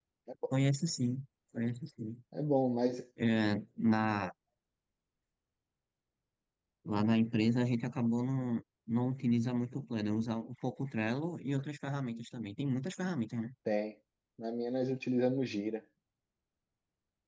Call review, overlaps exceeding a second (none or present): none